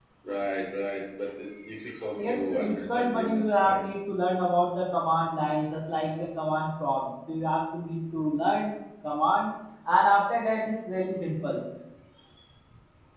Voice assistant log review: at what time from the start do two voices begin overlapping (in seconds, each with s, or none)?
2.2 s